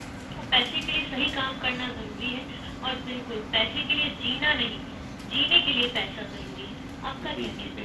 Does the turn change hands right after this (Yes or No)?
Yes